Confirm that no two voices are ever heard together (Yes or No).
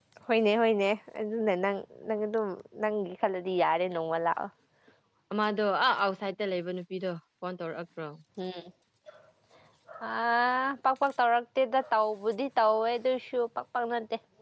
Yes